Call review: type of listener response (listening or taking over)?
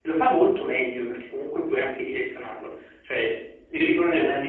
listening